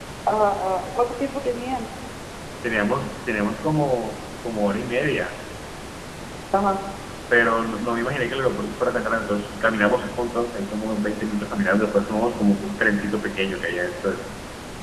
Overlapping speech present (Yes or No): No